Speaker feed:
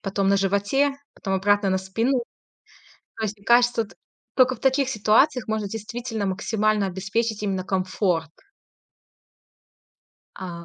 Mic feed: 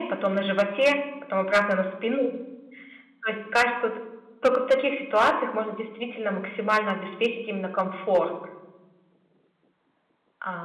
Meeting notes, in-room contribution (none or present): none